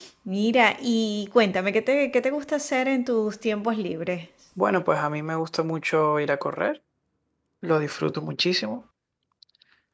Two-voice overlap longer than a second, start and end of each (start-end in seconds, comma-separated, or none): none